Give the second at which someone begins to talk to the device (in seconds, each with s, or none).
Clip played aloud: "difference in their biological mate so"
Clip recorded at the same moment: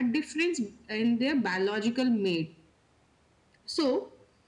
none